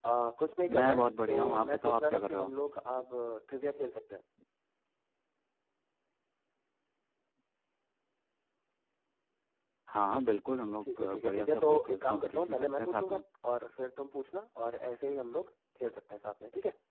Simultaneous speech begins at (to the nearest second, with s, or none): 1 s